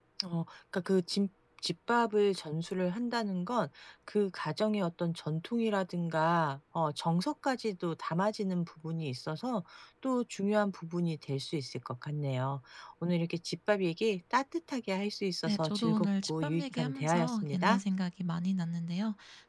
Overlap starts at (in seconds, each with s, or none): 15.5 s